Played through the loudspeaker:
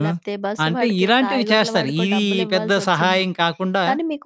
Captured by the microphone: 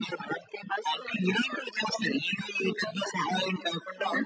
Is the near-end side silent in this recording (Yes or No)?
No